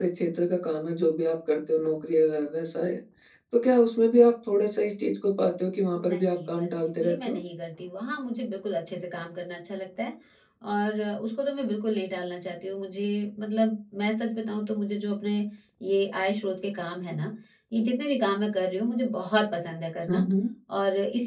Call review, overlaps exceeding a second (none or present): present